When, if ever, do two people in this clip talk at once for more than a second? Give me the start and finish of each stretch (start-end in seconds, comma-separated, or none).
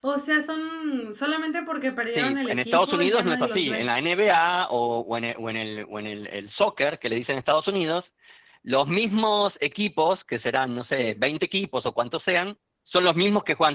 2.1-3.8